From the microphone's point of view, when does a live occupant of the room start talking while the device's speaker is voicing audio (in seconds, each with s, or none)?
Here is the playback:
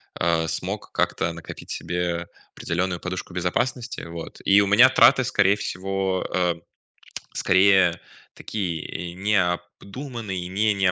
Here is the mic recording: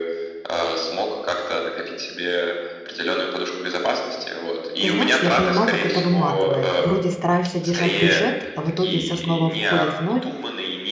4.8 s